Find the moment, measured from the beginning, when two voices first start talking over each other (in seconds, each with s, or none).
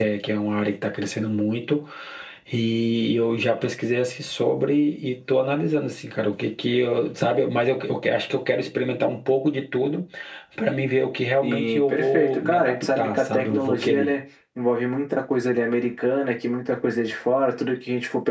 11.4 s